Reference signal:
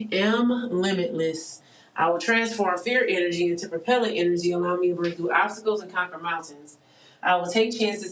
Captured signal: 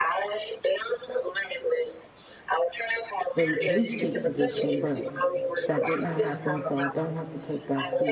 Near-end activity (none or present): present